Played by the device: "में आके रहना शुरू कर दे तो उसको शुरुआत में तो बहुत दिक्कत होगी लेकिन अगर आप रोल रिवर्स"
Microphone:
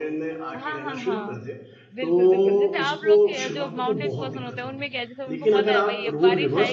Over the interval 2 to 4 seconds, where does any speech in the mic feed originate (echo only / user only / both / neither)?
both